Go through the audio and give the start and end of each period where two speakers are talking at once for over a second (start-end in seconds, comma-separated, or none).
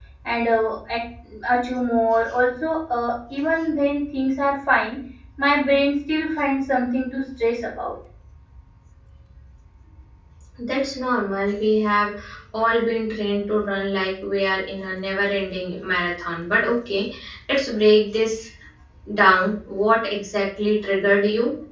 none